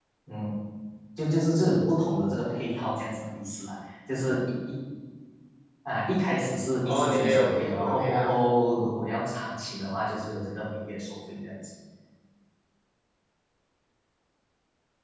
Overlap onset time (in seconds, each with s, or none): 6.8 s